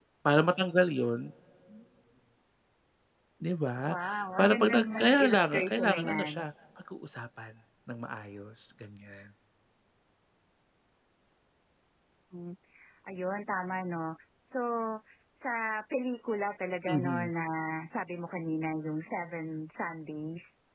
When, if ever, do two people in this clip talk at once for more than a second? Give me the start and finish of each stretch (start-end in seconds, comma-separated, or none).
4.4-6.3